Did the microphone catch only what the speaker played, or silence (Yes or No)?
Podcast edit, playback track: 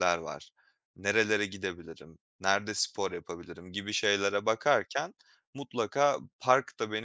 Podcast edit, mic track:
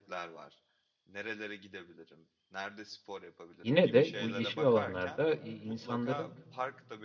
No